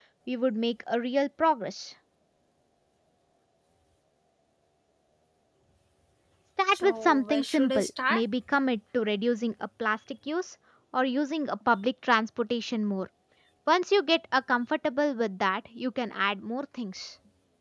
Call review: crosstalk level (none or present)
present